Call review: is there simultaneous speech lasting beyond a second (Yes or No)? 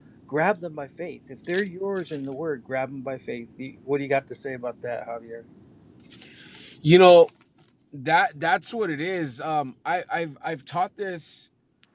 No